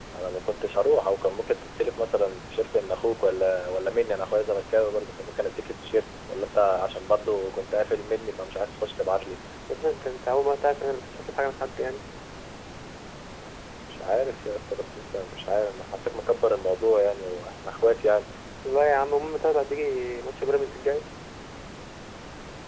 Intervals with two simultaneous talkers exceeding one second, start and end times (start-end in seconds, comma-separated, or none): none